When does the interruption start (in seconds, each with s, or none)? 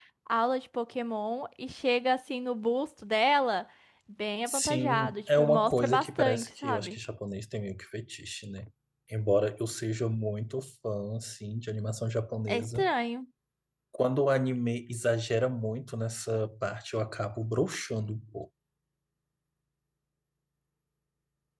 4.5 s